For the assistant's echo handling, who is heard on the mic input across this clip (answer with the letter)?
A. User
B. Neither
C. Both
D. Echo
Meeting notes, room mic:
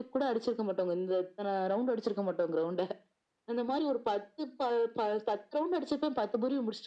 D